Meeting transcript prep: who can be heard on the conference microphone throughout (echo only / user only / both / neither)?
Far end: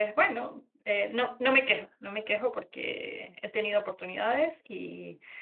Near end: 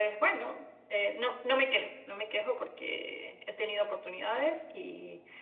echo only